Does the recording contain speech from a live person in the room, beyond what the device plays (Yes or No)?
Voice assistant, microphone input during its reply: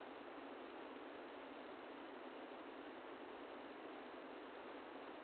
No